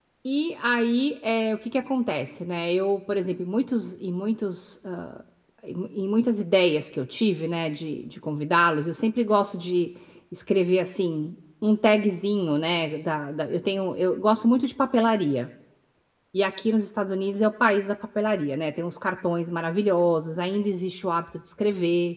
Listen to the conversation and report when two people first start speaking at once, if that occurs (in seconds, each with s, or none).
none